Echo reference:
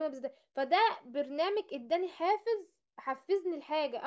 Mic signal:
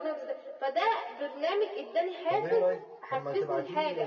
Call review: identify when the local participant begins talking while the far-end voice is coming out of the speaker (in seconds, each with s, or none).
2.3 s